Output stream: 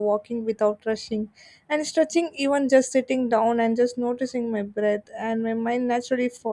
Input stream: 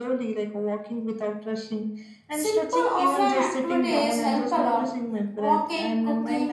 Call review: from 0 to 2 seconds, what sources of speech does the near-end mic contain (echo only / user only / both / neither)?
echo only